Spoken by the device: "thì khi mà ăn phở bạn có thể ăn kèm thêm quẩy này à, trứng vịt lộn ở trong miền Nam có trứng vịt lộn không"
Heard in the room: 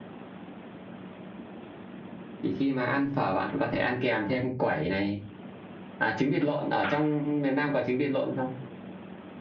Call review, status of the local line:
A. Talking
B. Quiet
B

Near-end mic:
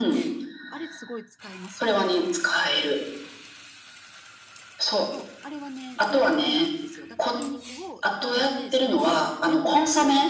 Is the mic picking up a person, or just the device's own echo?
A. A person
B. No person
A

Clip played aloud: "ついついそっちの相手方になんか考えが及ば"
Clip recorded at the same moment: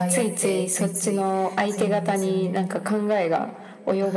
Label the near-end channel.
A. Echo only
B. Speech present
B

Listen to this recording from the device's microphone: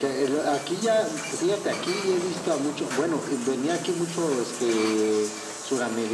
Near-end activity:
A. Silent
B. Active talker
A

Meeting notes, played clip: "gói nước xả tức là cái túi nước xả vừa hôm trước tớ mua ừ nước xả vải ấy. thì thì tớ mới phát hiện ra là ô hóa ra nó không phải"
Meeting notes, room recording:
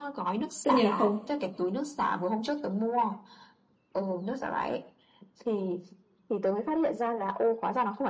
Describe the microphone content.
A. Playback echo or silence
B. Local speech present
B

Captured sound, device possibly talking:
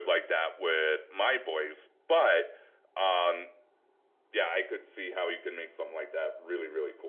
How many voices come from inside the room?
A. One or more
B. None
B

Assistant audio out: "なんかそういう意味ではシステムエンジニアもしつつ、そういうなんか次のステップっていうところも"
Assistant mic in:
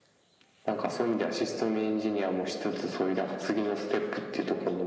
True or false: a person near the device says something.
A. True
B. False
B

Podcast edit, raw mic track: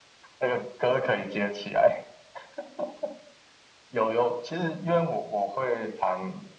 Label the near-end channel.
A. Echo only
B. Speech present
A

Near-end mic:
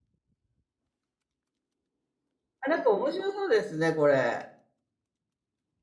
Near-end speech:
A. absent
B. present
B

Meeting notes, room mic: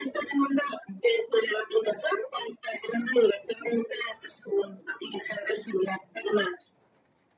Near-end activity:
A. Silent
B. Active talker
A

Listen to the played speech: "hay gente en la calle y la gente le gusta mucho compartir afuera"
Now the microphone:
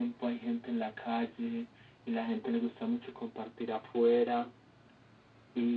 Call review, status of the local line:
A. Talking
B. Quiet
B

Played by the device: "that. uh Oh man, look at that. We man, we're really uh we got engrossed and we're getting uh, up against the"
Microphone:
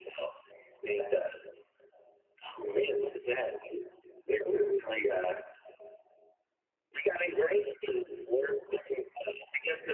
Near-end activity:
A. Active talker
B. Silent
B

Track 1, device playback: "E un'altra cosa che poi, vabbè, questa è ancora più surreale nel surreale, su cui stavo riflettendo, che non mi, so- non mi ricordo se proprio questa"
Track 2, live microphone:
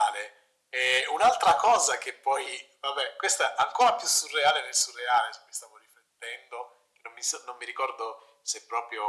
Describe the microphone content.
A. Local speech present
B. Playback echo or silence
B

